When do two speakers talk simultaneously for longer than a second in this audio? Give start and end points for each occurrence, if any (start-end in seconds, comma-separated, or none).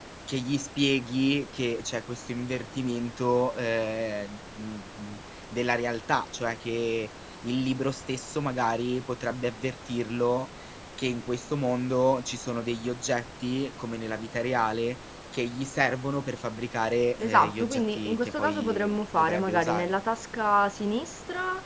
17.2-19.9